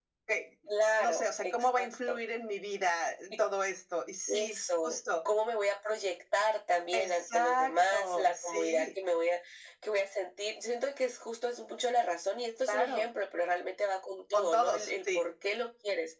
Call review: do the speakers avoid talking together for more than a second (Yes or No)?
No